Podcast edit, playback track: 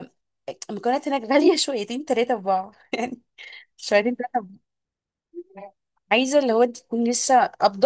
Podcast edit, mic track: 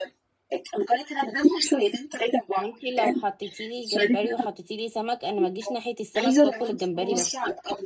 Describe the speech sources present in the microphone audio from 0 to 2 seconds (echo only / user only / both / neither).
echo only